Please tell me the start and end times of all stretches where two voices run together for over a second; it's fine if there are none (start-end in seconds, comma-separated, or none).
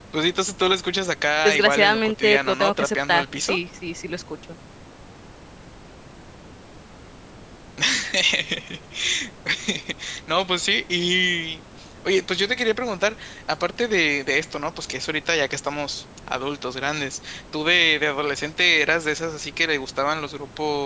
1.4-3.6